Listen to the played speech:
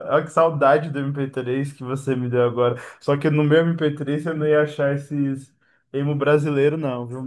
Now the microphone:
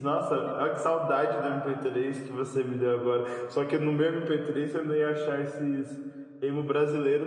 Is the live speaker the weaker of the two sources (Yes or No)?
Yes